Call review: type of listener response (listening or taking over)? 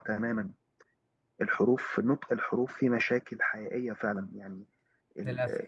listening